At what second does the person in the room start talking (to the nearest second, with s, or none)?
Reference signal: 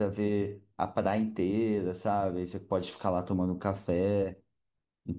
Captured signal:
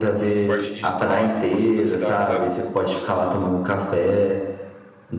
0 s